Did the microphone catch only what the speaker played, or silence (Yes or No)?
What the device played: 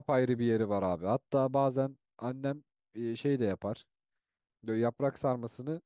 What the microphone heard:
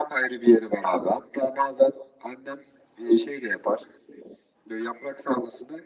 Yes